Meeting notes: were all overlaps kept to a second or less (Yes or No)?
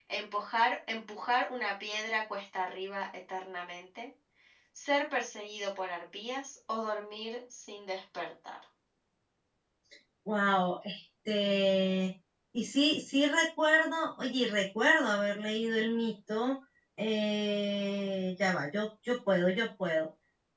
Yes